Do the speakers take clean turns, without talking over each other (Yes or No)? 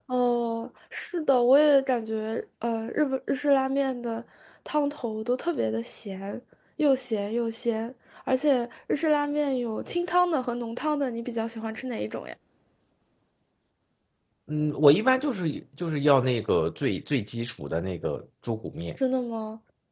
Yes